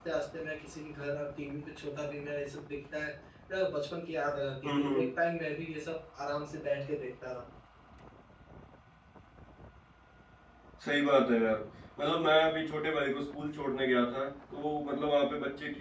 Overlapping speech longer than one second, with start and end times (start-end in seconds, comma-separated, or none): none